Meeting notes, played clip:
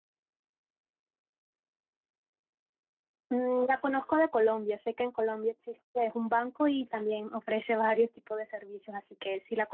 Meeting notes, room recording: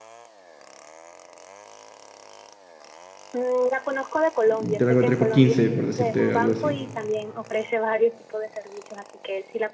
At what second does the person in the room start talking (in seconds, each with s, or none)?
4.4 s